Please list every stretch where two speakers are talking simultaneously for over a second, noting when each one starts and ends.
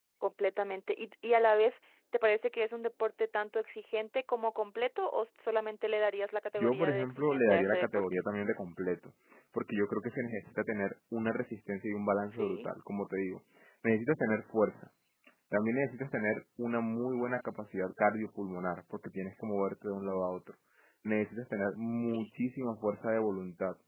6.6-8.1

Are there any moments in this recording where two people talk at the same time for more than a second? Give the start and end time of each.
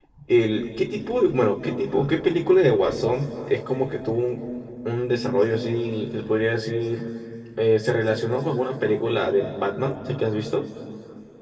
none

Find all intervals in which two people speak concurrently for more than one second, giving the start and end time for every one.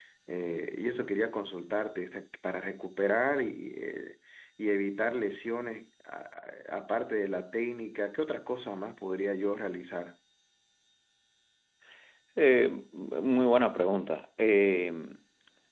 none

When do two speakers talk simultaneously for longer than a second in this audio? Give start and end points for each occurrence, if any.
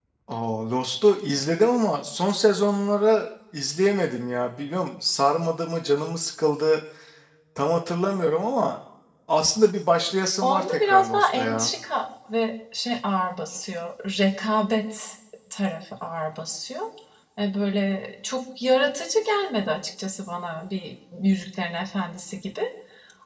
10.4-11.7

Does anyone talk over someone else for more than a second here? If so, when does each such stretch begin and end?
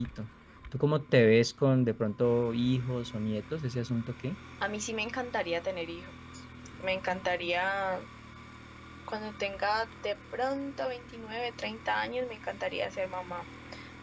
none

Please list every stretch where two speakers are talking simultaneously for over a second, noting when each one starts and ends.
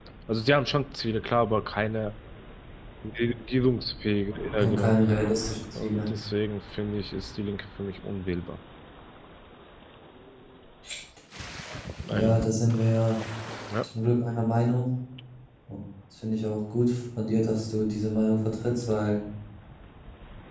none

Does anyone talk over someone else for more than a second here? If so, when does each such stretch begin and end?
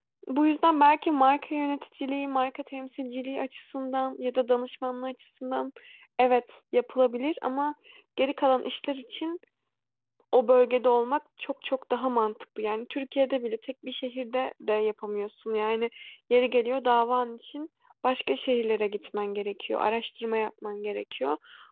none

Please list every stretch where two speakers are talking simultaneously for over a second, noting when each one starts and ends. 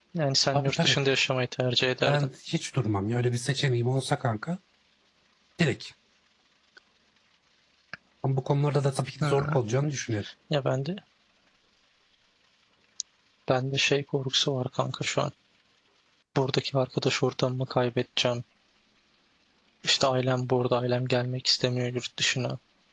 none

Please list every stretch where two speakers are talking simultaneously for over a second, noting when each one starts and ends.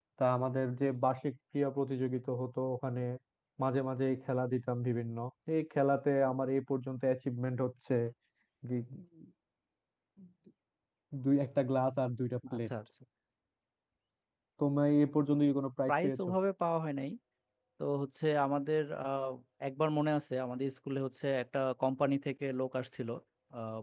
none

